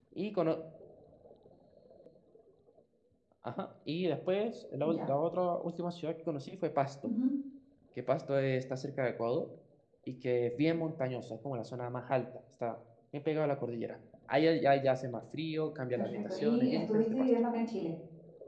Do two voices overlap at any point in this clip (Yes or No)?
Yes